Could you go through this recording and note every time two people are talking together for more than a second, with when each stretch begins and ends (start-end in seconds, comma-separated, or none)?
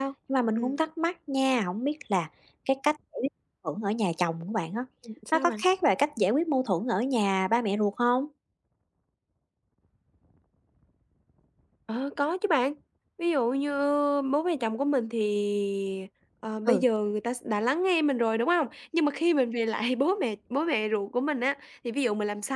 none